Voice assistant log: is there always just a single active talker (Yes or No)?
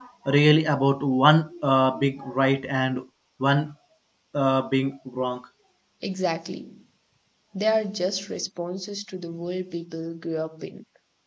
Yes